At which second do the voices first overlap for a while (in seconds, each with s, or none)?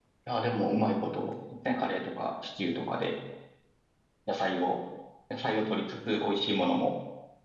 none